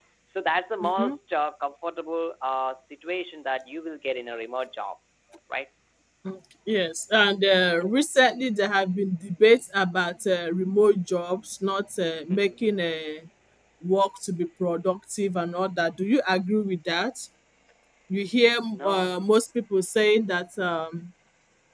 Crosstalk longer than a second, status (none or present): none